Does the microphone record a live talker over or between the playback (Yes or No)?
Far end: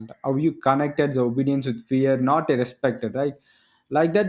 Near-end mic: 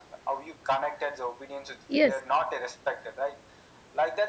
Yes